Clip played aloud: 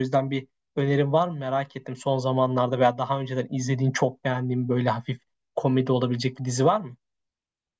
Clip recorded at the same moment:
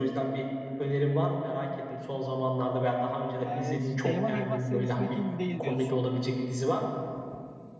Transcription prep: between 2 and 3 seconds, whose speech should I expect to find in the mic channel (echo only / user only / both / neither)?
echo only